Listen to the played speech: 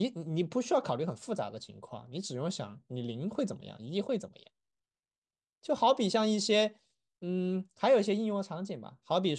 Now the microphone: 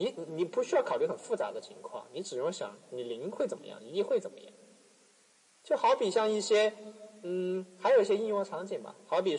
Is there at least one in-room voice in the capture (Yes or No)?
No